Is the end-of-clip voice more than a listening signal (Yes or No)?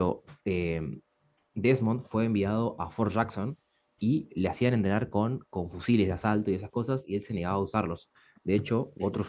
No